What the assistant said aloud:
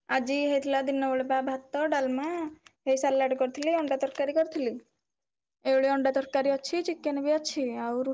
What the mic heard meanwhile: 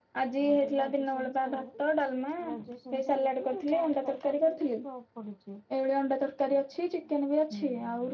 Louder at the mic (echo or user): echo